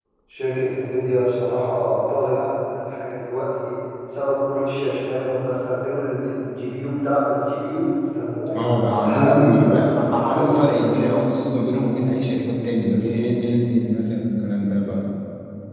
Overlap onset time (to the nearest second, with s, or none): 9 s